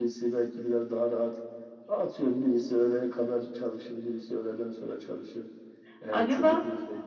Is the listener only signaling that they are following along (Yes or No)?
Yes